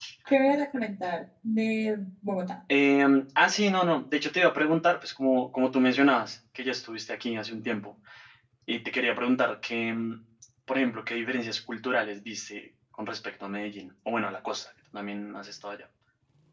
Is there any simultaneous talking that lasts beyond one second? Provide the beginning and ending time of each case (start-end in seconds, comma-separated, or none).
none